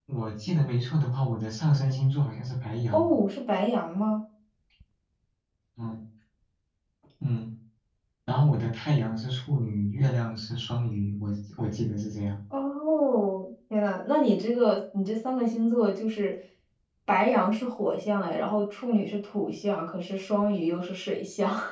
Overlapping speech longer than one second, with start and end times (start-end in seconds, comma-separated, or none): none